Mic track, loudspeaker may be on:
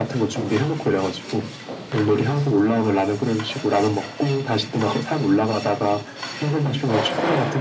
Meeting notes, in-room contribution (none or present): none